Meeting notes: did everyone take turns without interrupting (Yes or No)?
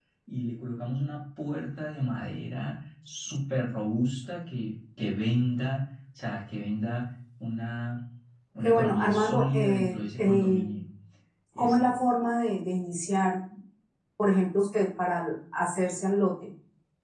No